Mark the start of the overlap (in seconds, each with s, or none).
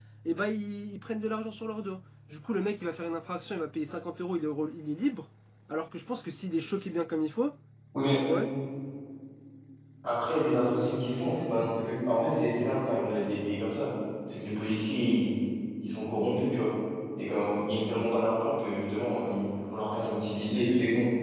none